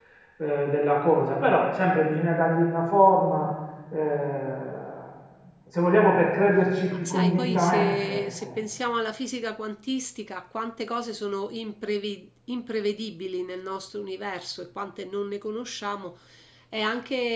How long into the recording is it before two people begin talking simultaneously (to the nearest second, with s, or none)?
7 s